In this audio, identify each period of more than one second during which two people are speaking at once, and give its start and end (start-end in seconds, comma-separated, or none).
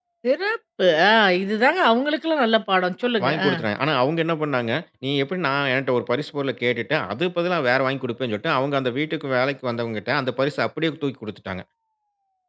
none